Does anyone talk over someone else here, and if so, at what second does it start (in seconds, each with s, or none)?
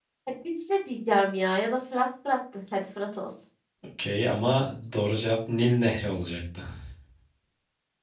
none